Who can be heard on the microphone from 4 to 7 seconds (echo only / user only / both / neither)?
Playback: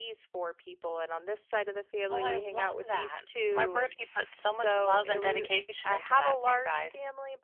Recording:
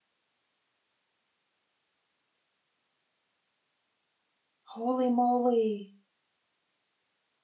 user only